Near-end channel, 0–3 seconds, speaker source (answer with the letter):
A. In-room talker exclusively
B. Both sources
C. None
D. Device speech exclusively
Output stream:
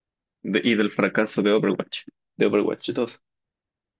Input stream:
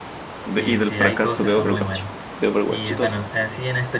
B